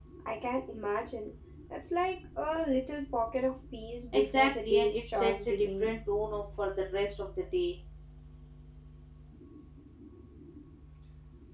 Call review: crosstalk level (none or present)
present